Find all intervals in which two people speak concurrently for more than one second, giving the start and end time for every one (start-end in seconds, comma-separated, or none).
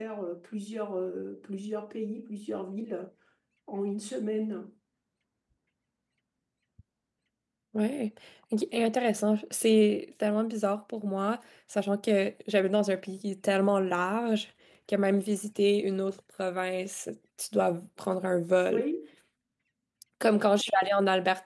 none